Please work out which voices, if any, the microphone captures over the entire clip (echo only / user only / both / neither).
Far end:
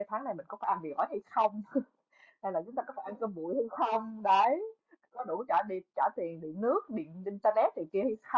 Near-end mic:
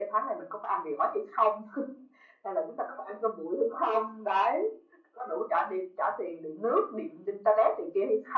echo only